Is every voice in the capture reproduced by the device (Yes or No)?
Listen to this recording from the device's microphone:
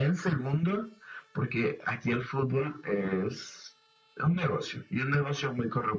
Yes